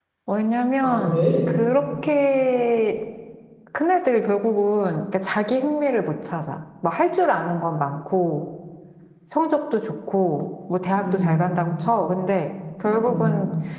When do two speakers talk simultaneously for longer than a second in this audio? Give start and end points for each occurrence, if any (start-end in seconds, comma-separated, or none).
none